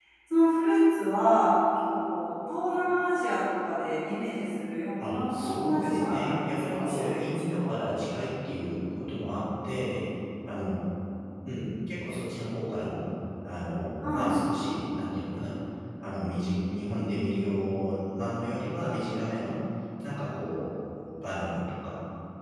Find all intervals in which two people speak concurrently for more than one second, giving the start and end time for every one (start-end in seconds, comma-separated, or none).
5.0-7.7